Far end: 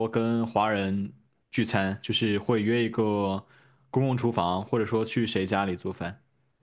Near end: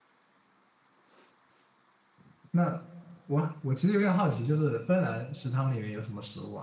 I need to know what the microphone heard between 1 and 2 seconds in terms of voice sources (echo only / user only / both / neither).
neither